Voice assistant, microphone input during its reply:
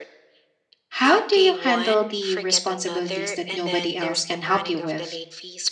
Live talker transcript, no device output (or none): How do you handle the responsibilities that nobody else can help you with?